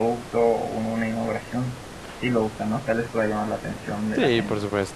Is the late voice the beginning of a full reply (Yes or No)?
Yes